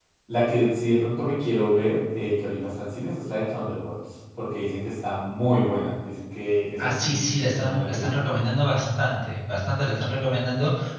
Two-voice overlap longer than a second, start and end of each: 6.8-8.3

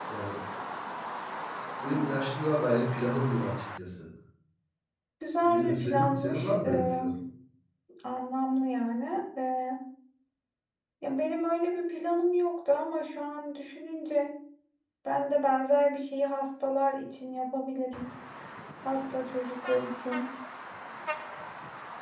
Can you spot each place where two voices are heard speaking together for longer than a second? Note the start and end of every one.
5.4-7.0

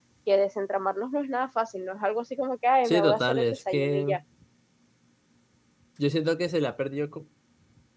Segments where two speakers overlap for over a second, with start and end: 2.8-4.1

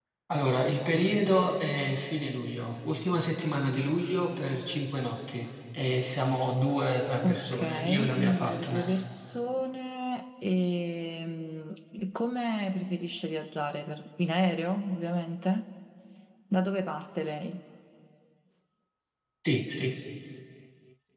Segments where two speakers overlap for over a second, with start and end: 7.2-8.9

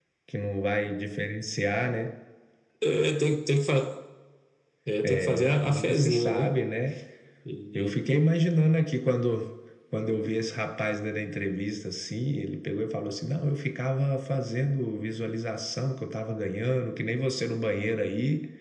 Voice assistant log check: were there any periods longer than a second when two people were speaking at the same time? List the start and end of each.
5.1-6.5

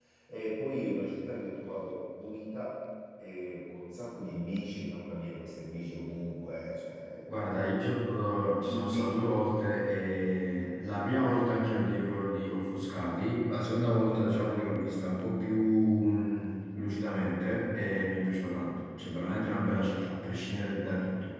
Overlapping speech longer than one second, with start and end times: none

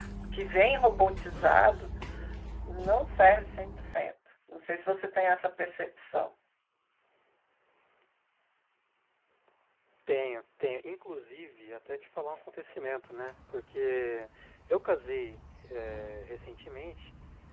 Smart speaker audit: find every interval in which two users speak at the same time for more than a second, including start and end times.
none

